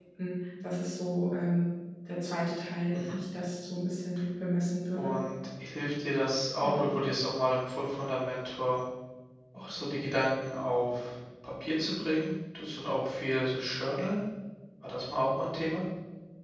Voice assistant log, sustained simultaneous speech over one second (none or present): none